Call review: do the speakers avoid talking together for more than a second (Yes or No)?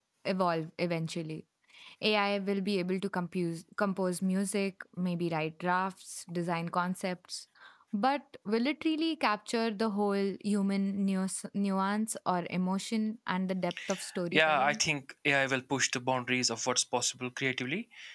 Yes